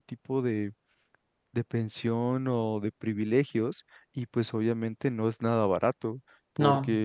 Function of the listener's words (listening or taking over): listening